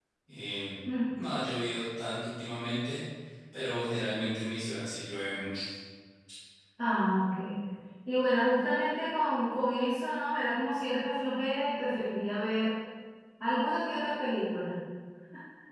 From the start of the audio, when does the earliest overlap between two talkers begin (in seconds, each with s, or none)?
none